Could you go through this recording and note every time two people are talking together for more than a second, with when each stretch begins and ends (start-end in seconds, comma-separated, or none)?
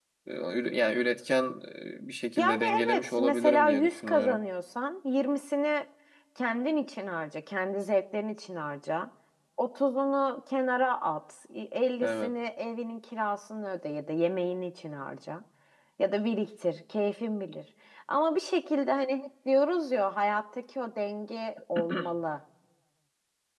2.4-4.4